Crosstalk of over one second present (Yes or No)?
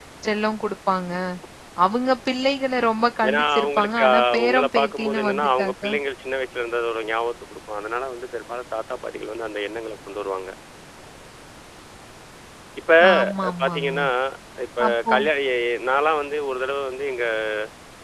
Yes